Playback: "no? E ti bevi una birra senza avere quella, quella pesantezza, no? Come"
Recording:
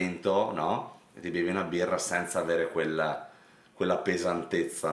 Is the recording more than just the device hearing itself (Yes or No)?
No